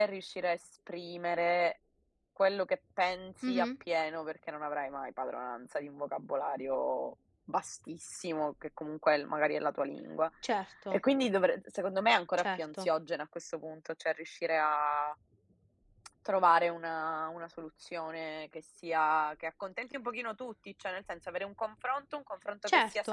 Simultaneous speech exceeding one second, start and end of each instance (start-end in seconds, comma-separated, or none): none